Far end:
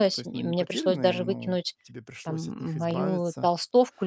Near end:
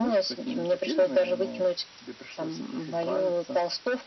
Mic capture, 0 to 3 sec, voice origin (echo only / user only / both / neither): echo only